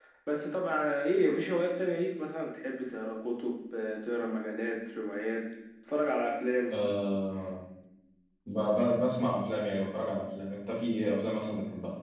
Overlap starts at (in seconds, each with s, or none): none